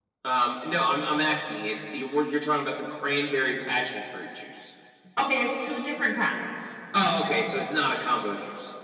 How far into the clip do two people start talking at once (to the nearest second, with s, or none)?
none